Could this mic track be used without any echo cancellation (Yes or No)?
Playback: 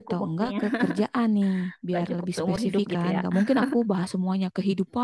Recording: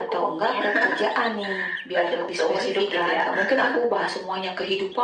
No